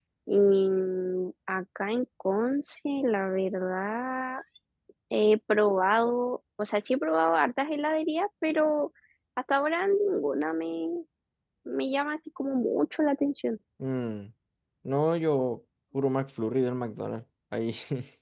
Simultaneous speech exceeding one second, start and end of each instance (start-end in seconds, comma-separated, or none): none